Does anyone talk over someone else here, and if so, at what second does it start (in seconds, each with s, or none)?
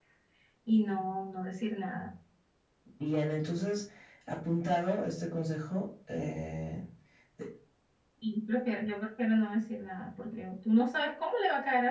none